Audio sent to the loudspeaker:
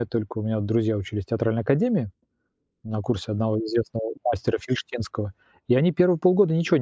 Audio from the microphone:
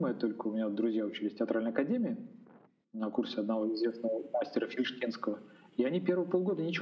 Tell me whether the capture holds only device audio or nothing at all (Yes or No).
Yes